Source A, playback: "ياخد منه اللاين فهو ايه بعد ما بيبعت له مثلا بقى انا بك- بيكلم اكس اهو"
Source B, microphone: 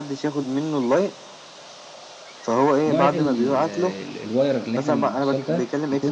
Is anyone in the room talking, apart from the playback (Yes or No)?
Yes